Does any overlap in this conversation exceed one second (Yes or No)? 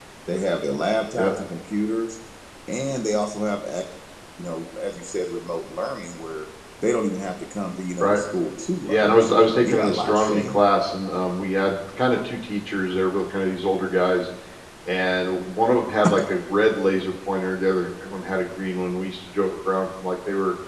Yes